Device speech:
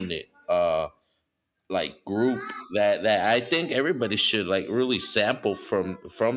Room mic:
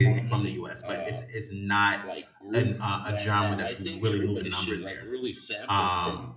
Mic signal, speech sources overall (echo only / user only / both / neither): both